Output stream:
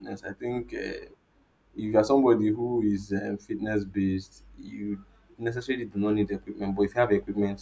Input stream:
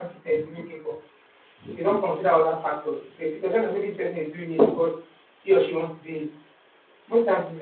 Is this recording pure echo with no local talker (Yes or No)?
No